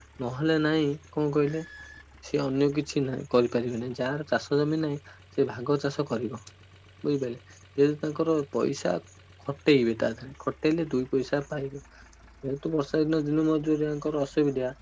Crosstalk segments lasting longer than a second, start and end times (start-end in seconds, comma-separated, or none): none